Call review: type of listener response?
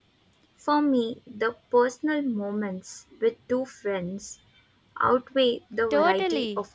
taking over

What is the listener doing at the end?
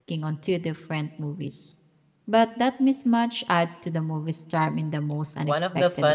taking over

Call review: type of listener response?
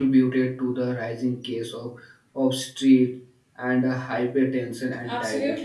taking over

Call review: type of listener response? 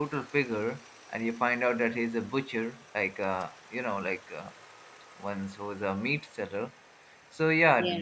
listening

